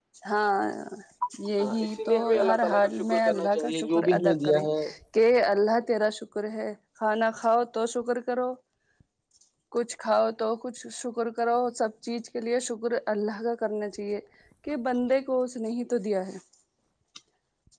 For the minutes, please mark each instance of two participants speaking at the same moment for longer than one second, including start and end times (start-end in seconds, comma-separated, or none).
1.6-4.6